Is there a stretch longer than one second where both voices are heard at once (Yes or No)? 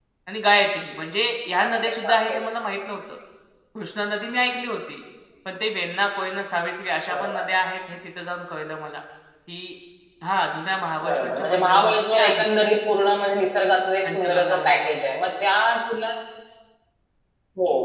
Yes